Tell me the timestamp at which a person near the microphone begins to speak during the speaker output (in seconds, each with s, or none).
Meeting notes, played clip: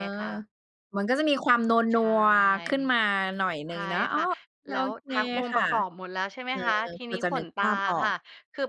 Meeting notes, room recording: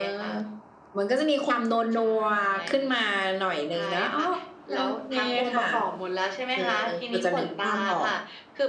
none